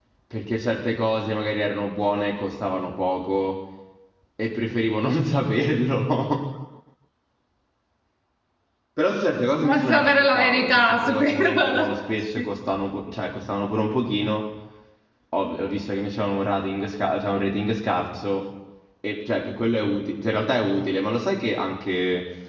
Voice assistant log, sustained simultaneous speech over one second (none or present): present